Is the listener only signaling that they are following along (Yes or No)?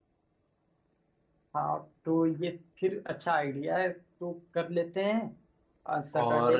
No